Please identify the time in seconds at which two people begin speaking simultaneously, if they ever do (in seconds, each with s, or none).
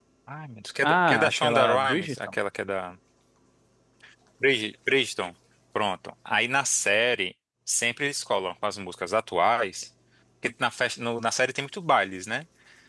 0.8 s